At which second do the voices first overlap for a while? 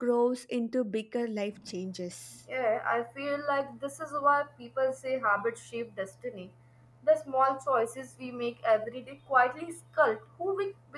none

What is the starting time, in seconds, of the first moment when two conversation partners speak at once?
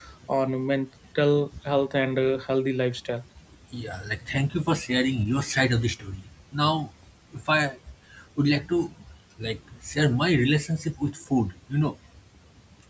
none

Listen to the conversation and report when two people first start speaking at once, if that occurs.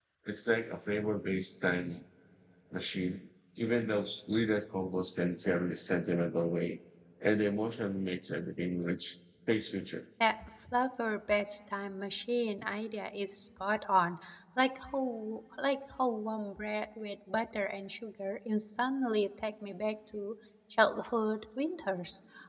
none

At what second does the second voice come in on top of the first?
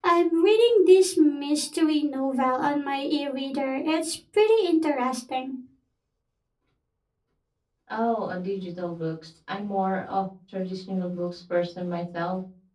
none

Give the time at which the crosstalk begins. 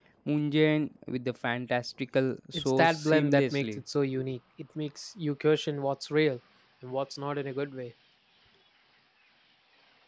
2.5 s

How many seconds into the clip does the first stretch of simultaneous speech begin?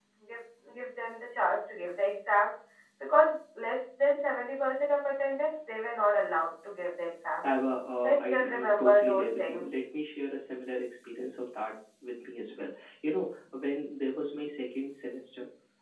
8.0 s

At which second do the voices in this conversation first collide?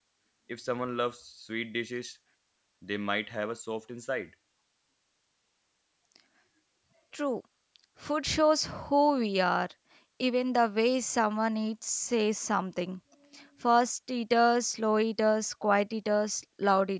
none

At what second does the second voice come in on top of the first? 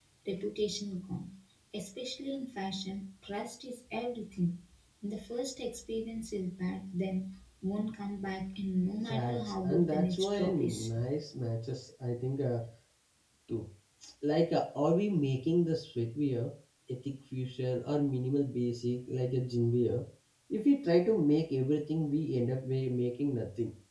9.0 s

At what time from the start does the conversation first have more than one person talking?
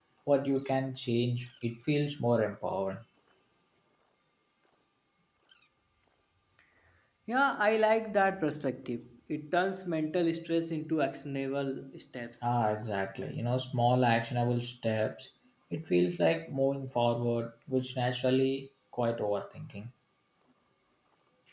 none

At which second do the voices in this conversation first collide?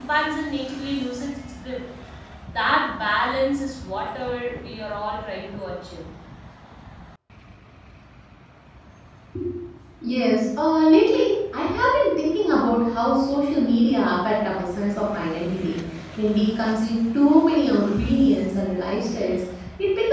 none

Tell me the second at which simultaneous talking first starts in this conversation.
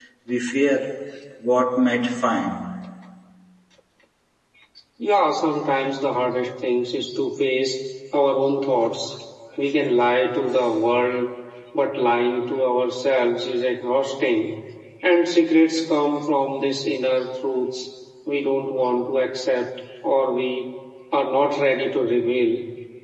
none

